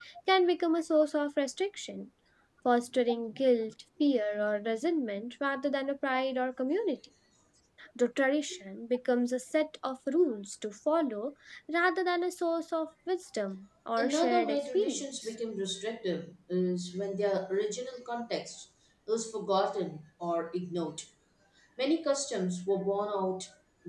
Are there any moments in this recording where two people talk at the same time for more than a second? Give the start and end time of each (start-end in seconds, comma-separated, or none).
14.0-15.3